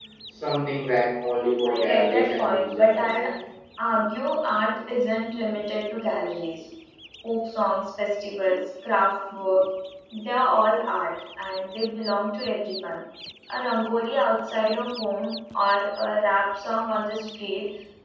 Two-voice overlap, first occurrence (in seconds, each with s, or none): 1.6 s